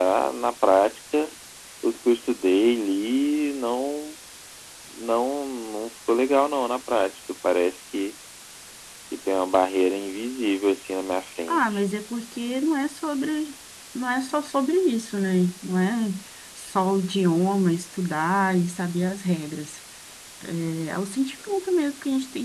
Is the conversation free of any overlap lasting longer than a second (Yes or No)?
Yes